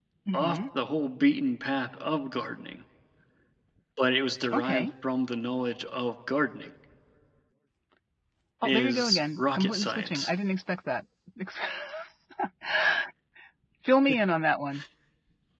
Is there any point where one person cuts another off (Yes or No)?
Yes